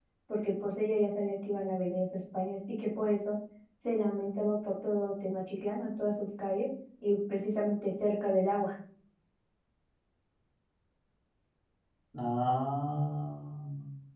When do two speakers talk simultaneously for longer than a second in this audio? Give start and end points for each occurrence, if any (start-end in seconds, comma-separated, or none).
none